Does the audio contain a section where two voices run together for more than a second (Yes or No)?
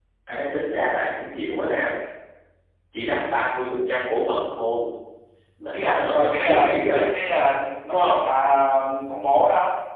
Yes